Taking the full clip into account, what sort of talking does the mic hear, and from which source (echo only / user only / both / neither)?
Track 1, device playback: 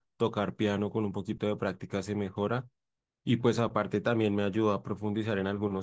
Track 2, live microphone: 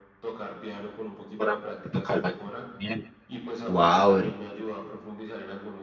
both